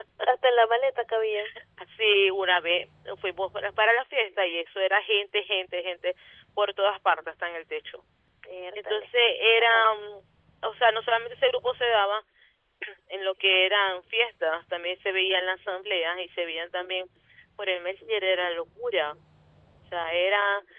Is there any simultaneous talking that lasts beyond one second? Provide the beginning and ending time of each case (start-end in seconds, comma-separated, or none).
none